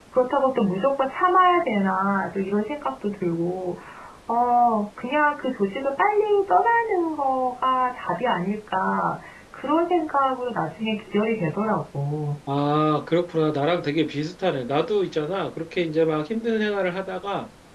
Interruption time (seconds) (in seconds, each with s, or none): none